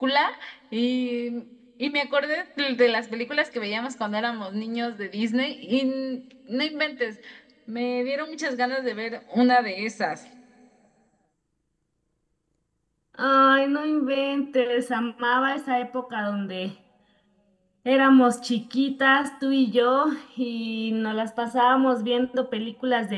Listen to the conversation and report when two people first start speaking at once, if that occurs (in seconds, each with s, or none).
none